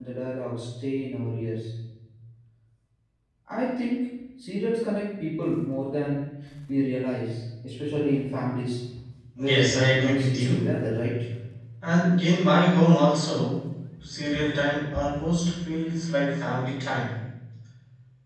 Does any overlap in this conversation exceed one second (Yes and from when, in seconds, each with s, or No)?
Yes, from 9.4 s